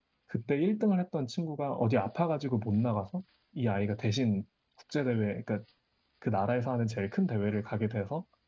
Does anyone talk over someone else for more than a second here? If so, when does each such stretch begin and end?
none

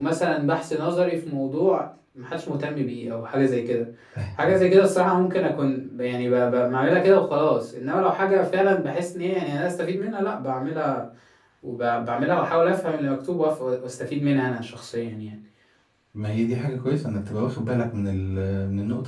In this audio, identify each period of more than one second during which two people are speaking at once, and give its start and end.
none

